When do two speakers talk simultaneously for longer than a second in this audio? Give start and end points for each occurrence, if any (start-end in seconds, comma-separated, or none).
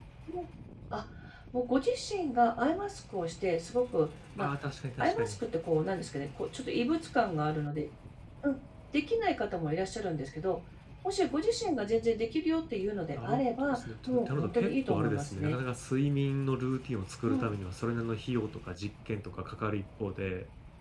13.2-15.6